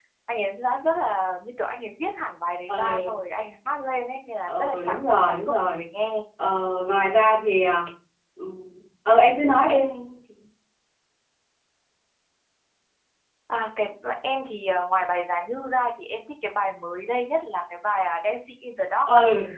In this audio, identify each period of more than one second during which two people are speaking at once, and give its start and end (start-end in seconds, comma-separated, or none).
4.5-5.8